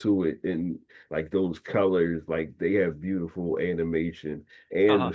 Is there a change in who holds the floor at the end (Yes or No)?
No